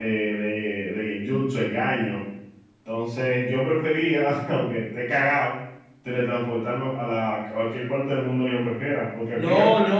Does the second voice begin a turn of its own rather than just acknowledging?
Yes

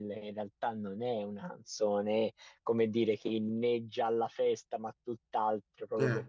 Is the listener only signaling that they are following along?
Yes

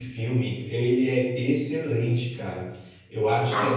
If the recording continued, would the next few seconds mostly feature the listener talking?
No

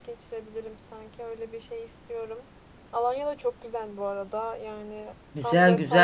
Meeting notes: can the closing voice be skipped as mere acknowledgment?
No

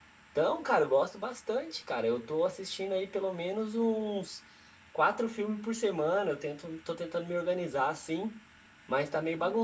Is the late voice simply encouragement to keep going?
Yes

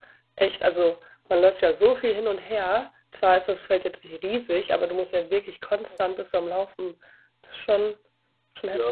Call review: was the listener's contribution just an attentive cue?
No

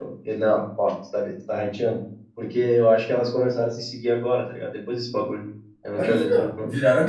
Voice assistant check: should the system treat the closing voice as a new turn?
Yes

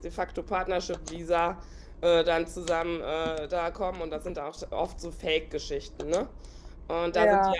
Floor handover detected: No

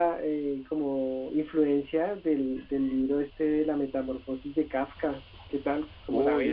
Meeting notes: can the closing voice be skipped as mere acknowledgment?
No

